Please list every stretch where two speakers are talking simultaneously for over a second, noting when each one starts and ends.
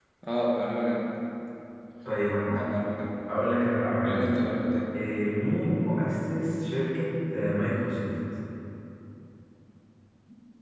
none

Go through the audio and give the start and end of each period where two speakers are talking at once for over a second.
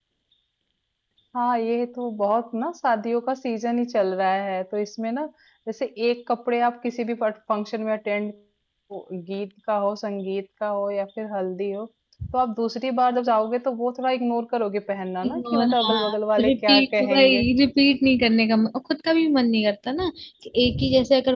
15.5-17.4

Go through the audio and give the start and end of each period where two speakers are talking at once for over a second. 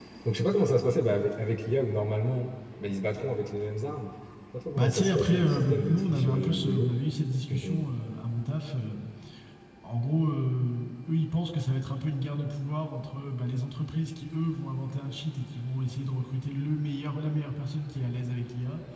4.8-6.9

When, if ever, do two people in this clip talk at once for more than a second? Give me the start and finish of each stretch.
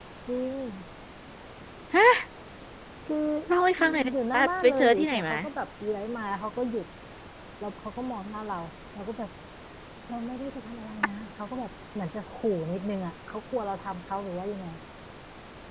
4.1-5.3

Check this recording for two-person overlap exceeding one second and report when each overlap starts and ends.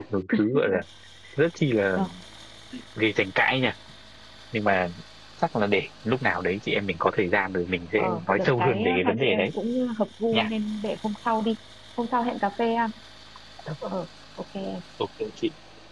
8.0-9.5

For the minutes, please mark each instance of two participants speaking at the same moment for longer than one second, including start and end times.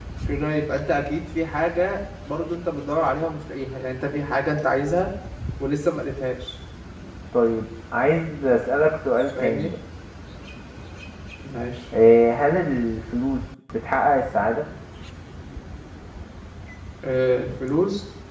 none

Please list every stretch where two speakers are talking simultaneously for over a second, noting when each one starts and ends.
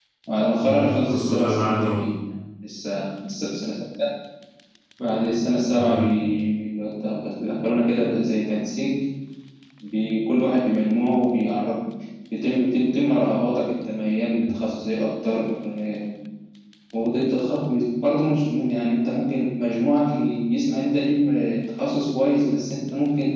0.6-1.9

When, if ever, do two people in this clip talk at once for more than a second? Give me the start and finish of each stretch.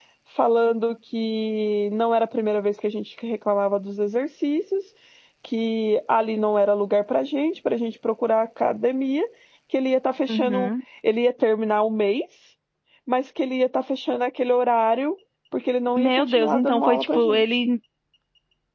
16.0-17.4

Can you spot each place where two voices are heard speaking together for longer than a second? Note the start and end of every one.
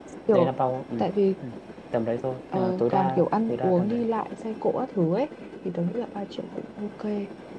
2.5-4.0

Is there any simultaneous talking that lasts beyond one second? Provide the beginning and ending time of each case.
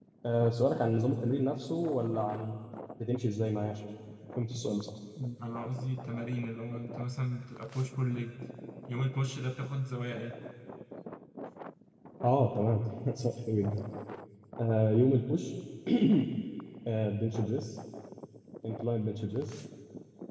none

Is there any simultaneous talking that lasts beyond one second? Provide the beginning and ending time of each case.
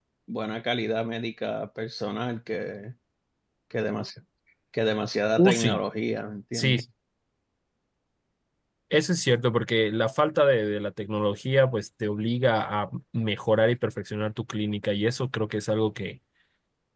none

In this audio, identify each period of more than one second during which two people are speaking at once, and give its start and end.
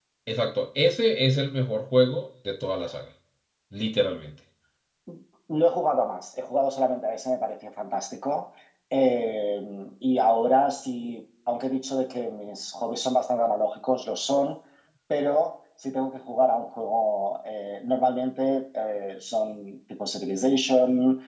none

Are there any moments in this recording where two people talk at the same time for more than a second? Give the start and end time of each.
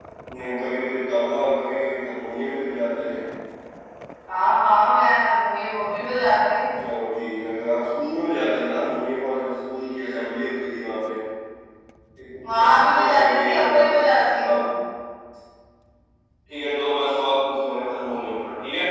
12.4-14.0

